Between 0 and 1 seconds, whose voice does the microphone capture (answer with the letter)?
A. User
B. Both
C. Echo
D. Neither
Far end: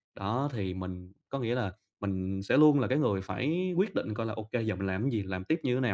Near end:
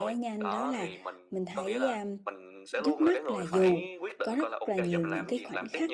B